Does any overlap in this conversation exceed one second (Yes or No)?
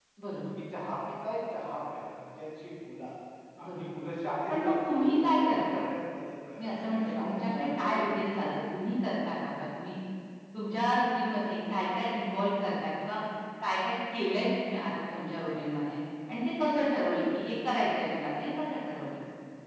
Yes